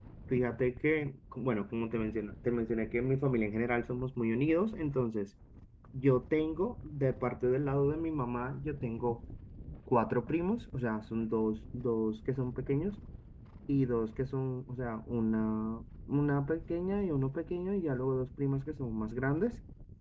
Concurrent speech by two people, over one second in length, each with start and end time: none

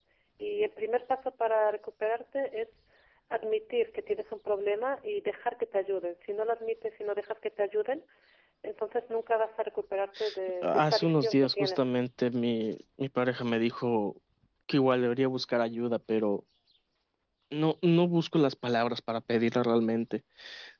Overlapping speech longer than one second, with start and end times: 10.6-11.9

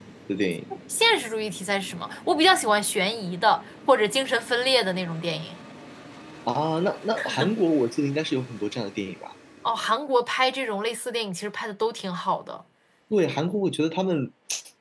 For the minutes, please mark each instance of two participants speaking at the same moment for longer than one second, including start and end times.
none

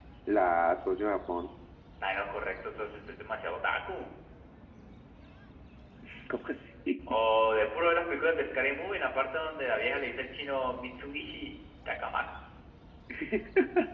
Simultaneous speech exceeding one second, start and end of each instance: none

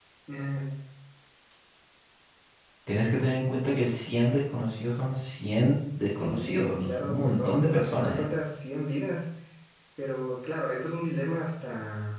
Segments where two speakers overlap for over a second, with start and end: 6.2-8.3

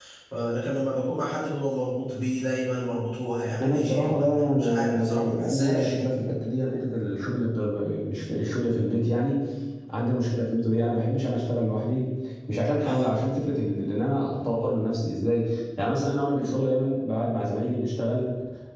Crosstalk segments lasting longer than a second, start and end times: 3.6-6.1

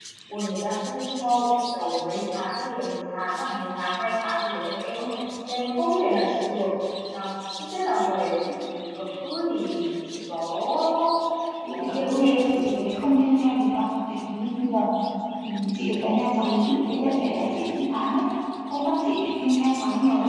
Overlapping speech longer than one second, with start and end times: 11.7-12.9

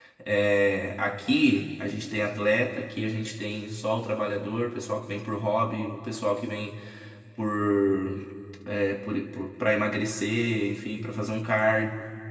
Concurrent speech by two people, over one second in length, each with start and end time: none

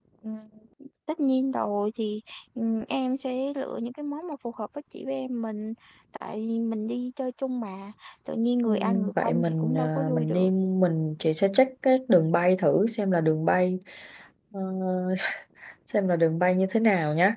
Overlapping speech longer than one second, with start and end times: 8.7-10.5

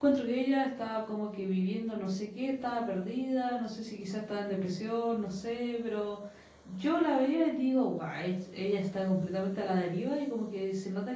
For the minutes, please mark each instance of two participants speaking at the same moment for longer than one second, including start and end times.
none

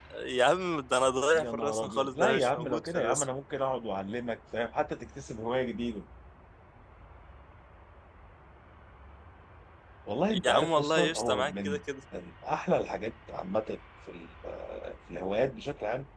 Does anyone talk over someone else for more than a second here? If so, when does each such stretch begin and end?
1.3-3.2, 10.4-11.8

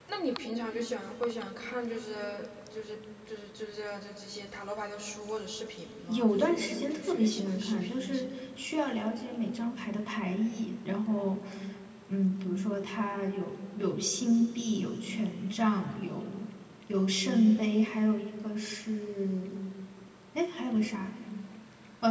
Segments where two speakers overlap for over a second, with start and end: 6.1-8.3

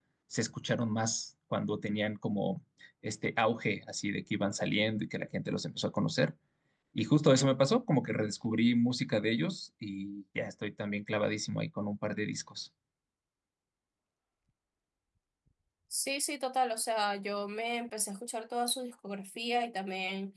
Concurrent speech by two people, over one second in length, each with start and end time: none

